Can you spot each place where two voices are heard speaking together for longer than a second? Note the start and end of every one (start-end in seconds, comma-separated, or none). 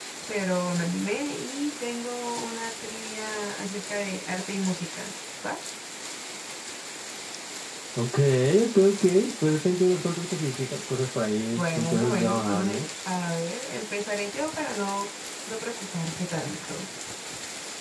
11.5-12.9